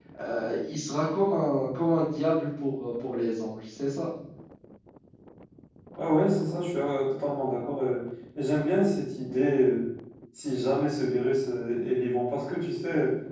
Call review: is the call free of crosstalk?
Yes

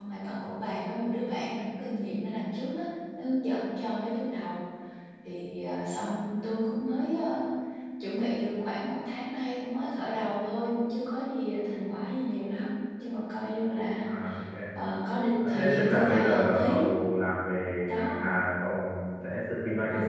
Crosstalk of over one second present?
Yes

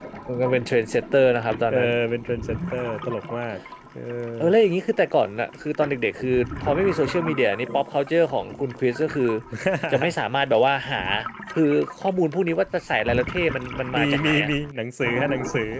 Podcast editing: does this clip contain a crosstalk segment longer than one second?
No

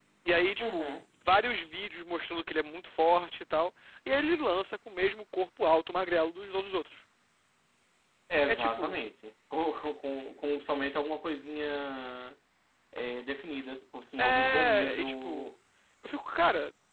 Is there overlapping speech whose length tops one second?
Yes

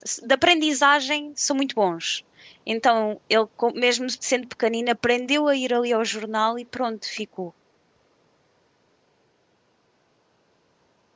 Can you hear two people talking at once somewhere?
No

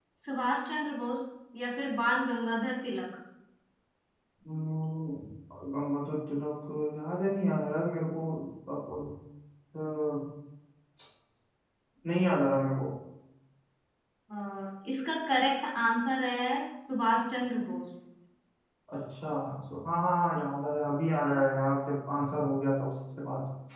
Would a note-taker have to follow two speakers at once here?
No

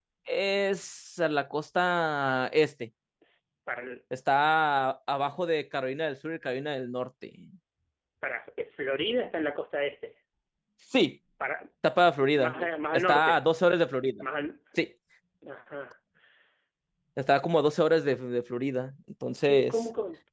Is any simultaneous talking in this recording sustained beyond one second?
No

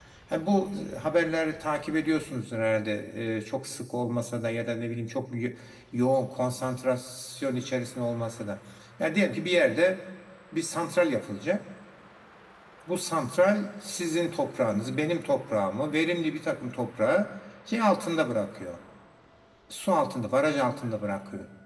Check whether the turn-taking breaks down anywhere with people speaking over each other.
No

